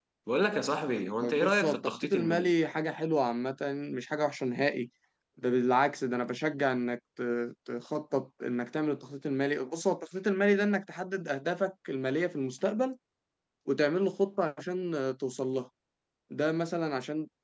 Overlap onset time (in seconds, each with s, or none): 1.2 s